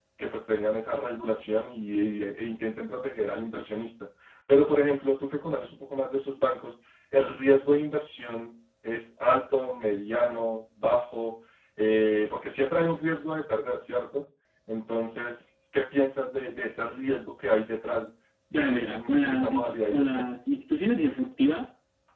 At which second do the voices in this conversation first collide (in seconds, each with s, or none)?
18.5 s